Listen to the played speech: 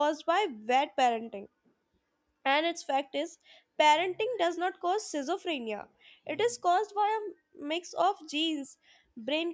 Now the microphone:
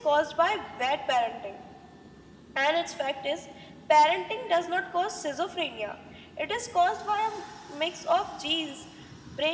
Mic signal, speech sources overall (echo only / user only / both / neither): echo only